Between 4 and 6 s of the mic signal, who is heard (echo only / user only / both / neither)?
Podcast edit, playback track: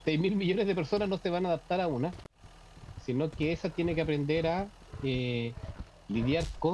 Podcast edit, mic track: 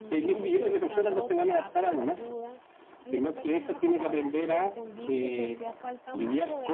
both